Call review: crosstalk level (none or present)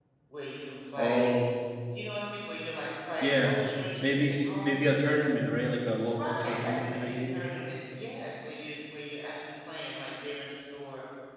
present